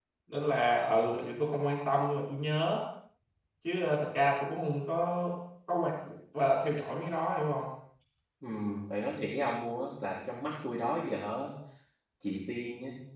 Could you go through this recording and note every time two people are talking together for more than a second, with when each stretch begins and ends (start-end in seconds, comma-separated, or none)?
none